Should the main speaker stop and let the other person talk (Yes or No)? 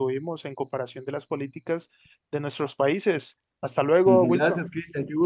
Yes